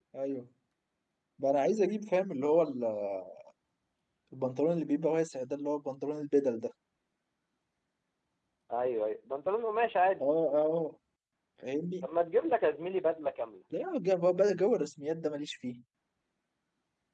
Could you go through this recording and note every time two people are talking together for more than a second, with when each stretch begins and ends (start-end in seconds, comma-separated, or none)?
none